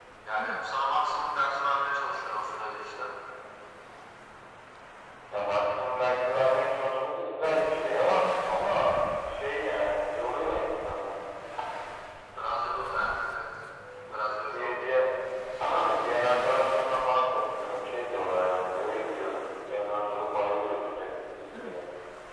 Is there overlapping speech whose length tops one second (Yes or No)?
No